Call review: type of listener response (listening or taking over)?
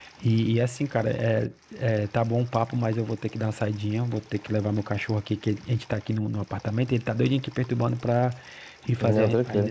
listening